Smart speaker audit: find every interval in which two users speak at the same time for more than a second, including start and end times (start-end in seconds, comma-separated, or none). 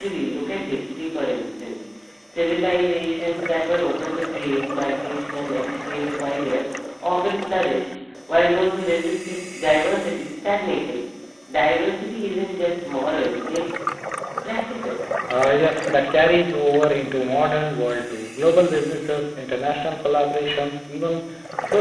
none